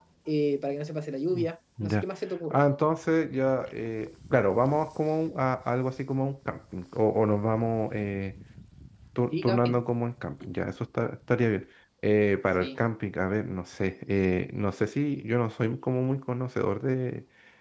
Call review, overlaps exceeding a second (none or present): none